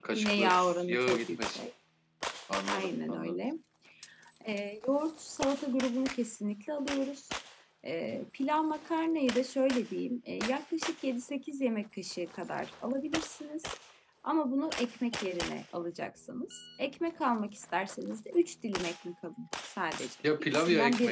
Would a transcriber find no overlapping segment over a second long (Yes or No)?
No